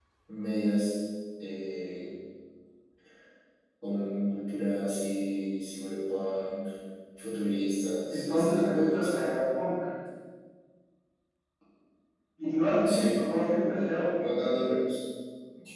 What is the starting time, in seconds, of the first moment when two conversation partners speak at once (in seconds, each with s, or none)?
8.1 s